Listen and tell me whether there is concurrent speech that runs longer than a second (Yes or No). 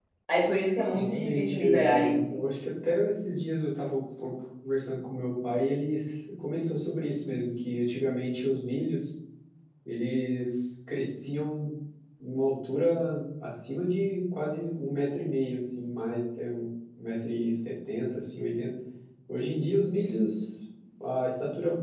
Yes